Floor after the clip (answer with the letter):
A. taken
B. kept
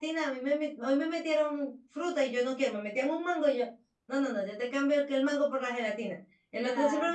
B